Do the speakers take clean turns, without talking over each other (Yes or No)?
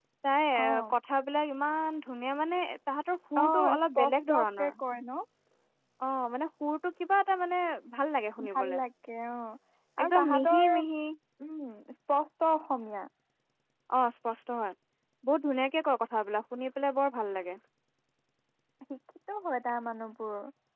No